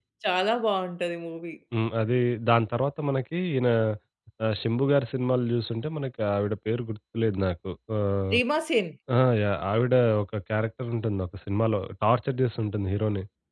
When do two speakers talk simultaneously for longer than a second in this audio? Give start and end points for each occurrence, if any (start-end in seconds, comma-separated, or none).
none